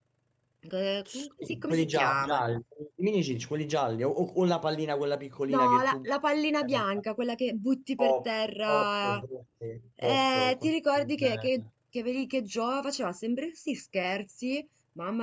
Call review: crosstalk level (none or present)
present